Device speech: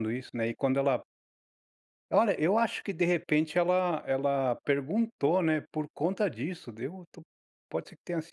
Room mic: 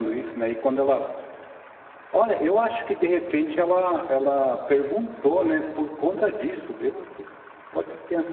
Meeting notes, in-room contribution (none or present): none